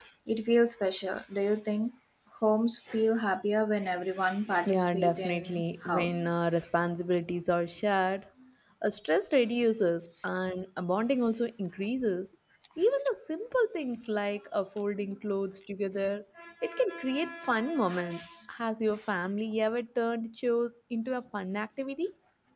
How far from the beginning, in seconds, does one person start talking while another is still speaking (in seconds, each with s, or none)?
4.7 s